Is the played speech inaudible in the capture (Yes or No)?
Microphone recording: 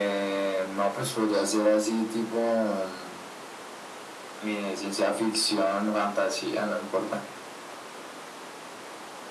No